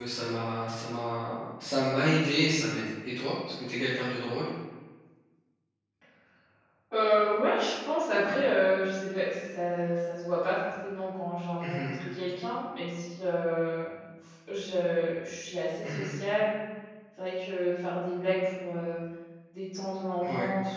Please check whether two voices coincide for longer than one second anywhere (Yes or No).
No